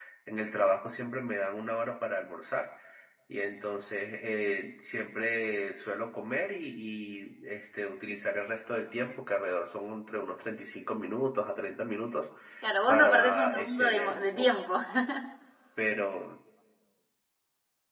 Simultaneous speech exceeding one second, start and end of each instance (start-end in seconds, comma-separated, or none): 12.9-14.5